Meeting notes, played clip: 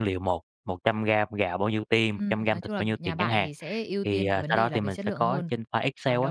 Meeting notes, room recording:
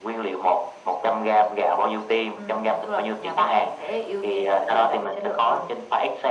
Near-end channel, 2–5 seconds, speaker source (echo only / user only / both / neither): echo only